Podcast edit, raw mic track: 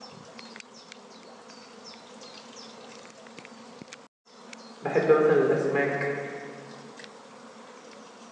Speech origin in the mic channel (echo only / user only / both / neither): user only